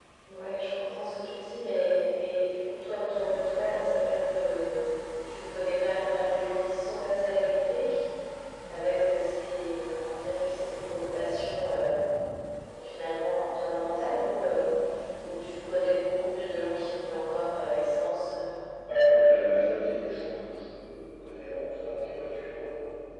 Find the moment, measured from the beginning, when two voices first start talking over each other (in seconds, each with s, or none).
none